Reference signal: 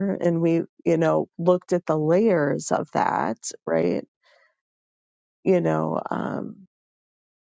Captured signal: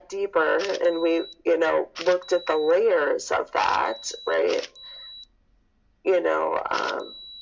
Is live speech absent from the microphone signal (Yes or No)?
Yes